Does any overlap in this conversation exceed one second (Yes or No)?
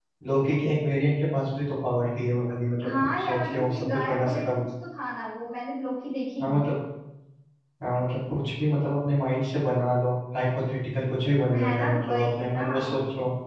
Yes